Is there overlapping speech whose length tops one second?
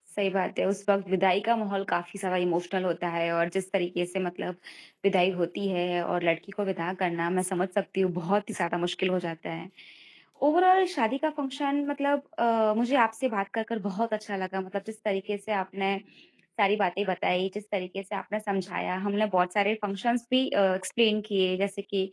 No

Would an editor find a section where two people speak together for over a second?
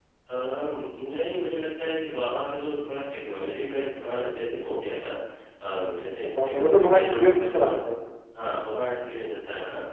Yes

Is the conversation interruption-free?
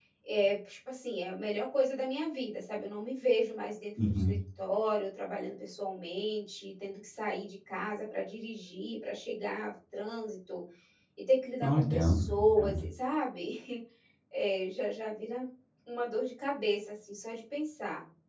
No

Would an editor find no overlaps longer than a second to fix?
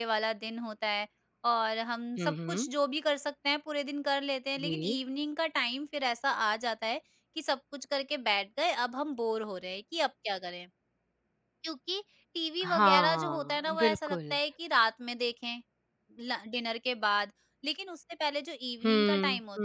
No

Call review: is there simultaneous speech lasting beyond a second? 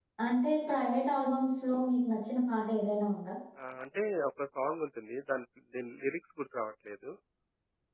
No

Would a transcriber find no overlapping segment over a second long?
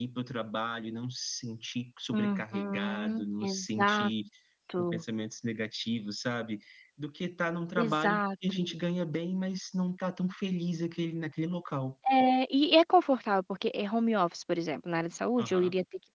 No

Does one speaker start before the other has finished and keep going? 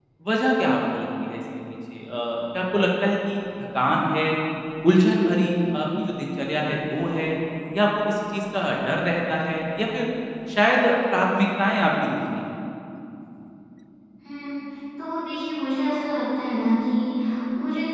No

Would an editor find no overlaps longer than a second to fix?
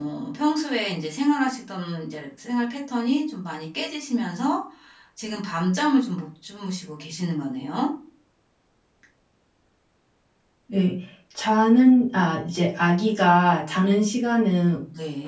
Yes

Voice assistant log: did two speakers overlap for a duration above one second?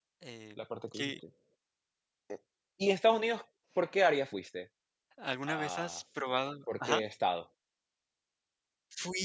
No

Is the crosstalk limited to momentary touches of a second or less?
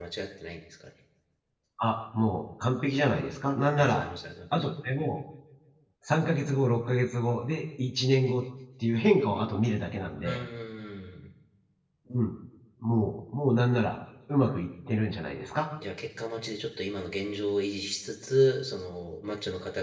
Yes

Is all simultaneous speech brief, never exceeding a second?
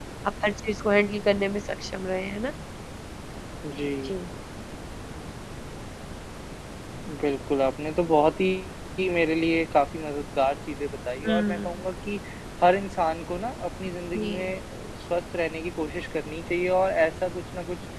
Yes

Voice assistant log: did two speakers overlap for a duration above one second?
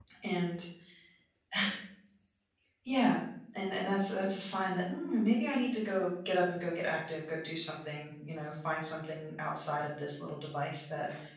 No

